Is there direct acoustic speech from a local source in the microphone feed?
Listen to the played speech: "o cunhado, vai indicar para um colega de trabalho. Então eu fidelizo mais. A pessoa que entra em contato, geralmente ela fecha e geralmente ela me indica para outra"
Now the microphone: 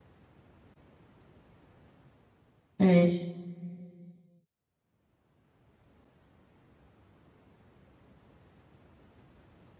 Yes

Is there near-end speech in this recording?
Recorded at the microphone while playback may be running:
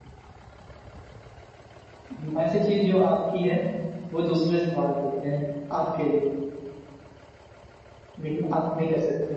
No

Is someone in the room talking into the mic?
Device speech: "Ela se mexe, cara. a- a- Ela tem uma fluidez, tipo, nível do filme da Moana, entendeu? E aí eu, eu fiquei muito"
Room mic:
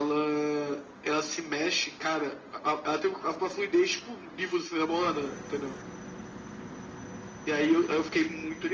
No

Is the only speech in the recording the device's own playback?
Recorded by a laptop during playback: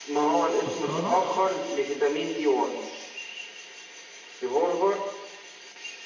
No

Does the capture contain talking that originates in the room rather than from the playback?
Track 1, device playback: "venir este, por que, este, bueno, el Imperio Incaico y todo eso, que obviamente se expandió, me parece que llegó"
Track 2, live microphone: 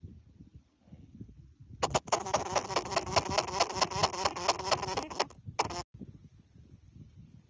No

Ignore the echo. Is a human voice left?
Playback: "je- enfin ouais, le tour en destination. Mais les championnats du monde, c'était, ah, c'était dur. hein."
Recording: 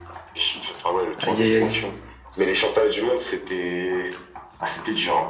Yes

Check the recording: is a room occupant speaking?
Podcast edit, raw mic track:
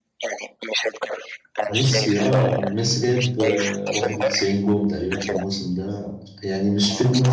Yes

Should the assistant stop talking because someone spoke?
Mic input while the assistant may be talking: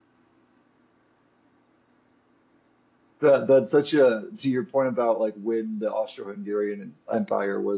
Yes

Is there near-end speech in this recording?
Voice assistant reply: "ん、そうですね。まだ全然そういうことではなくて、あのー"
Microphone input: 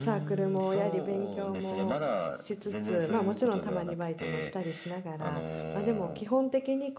Yes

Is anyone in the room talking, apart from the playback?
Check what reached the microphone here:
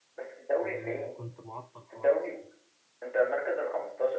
Yes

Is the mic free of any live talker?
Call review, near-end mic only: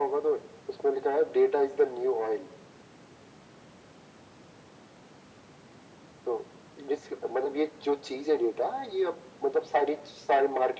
Yes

